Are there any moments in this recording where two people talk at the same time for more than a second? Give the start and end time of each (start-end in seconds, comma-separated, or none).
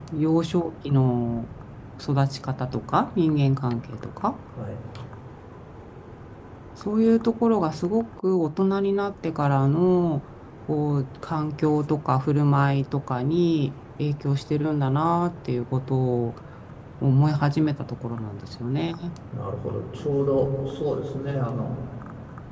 none